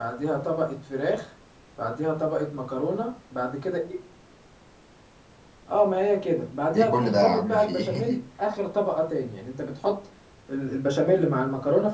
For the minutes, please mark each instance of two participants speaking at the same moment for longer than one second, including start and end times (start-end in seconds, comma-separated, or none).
6.7-8.2